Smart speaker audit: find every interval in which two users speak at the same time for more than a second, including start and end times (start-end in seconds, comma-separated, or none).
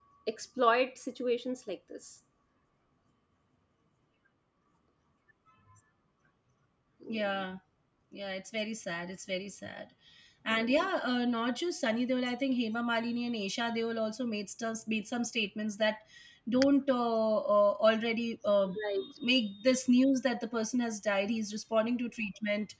none